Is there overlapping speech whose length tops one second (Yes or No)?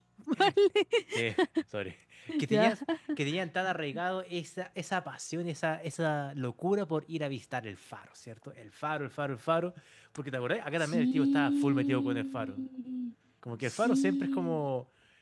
Yes